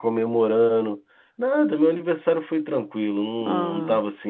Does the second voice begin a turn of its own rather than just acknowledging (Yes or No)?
No